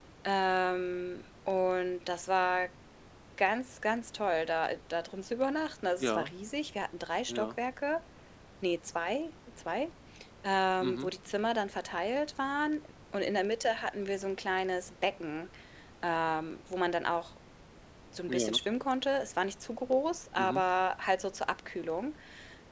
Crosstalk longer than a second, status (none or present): none